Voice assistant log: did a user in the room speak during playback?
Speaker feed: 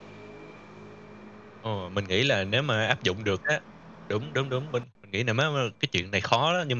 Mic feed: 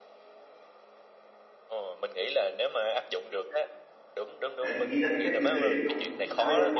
Yes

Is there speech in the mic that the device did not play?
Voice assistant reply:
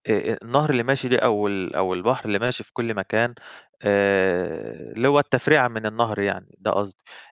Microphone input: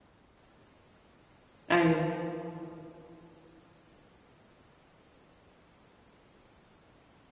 Yes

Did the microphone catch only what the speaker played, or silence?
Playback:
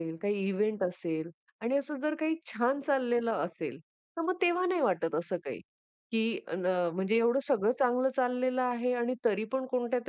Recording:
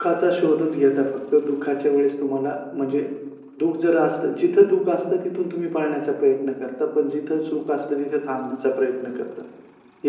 No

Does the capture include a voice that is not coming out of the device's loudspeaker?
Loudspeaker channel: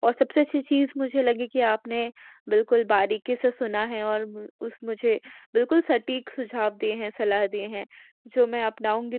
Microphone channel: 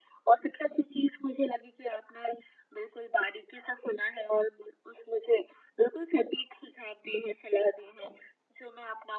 No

